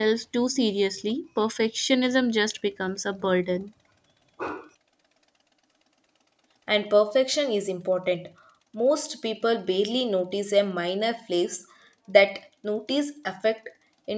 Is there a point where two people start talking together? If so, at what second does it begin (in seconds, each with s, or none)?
none